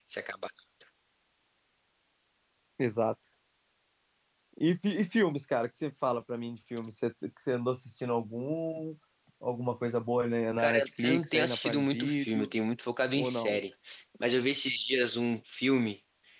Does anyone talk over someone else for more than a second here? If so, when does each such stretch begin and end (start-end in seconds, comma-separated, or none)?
10.6-12.5